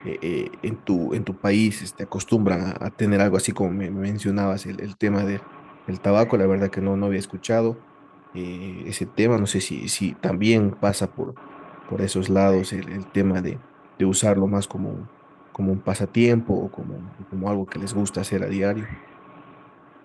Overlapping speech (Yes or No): No